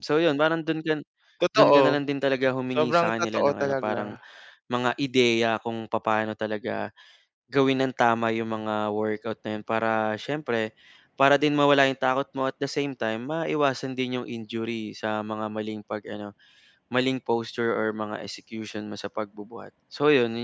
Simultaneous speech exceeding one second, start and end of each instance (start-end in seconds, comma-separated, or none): 2.8-4.1